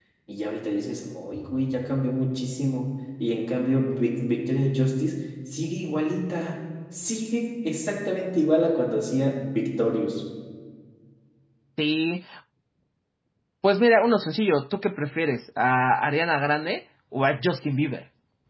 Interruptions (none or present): none